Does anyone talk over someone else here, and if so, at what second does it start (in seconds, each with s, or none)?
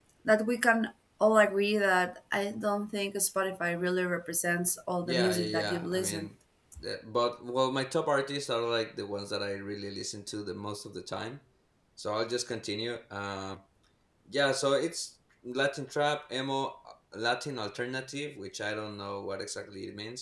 5.0 s